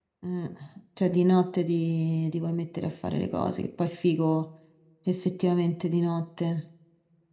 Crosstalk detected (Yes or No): No